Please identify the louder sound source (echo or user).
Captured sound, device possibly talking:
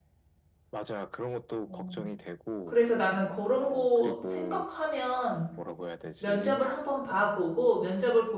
user